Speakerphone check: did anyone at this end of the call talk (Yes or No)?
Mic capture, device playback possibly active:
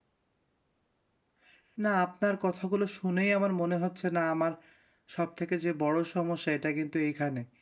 Yes